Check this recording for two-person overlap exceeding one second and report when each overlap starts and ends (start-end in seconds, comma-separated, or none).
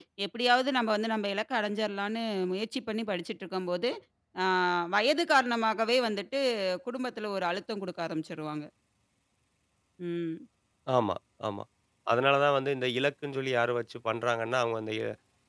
none